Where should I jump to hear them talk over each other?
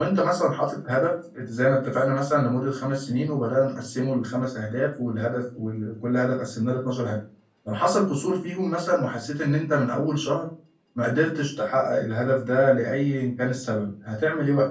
none

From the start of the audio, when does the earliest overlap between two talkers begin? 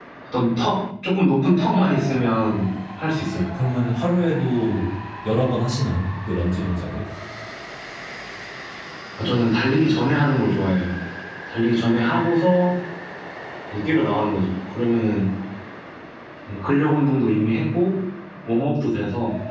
none

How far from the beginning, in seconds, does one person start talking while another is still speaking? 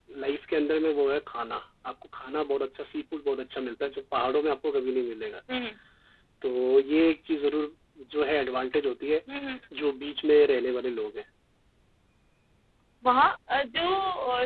none

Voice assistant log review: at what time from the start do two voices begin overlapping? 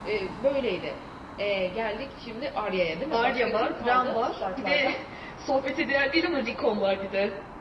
3 s

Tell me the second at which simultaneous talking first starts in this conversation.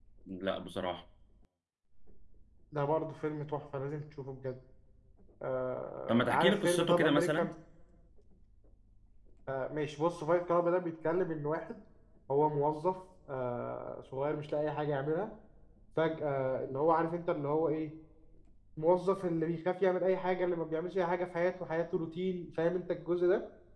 6 s

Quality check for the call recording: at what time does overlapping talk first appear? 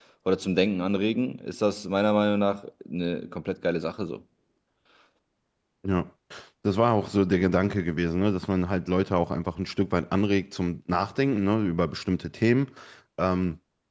none

